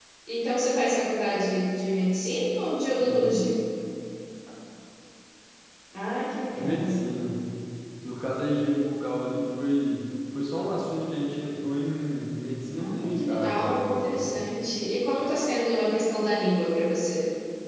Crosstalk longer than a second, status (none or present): present